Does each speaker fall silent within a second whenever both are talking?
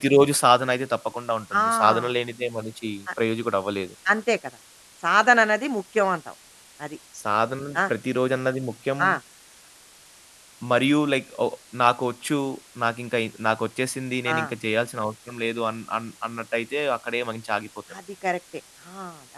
Yes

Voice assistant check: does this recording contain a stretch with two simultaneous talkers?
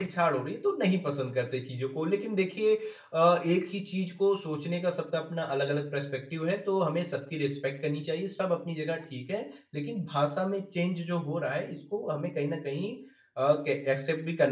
No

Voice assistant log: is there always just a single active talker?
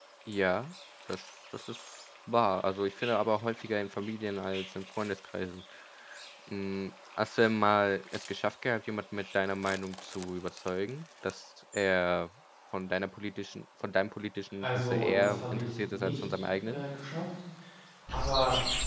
No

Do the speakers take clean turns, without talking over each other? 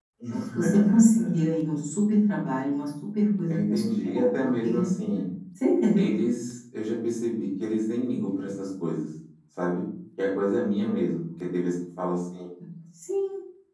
No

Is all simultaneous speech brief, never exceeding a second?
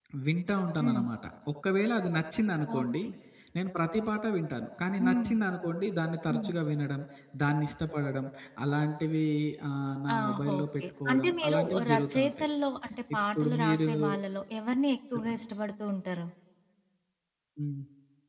No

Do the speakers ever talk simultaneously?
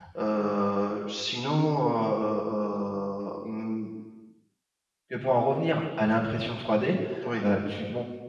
No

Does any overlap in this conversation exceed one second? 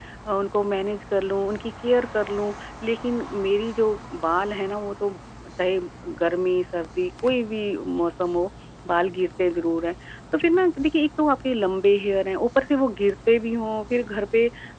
No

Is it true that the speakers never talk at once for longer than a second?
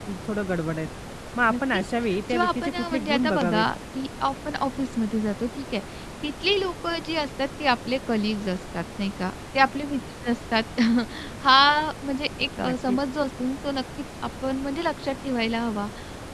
No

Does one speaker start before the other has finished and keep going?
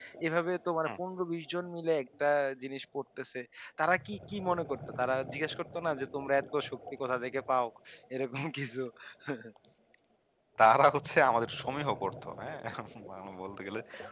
No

